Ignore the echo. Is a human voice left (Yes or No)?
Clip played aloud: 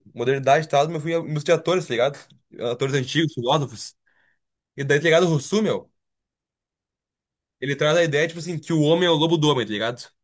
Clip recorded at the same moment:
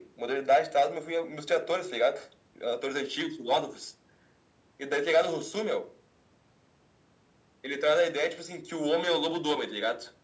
No